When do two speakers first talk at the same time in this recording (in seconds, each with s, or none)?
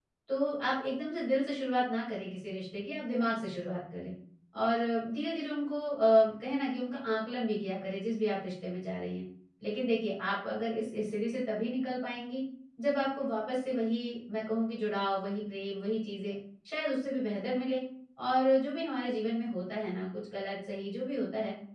none